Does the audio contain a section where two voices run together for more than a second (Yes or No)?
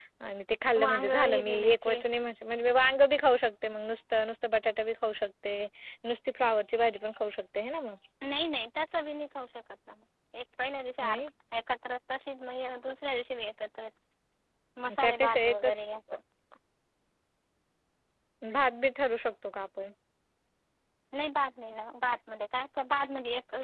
Yes